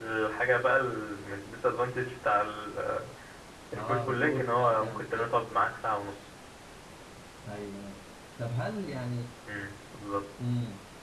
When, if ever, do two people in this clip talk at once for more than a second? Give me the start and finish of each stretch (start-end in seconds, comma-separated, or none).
3.7-5.3